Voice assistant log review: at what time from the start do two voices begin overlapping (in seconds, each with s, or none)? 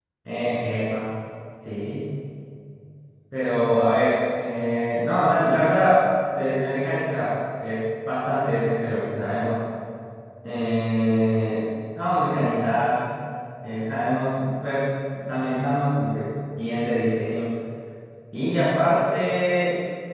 none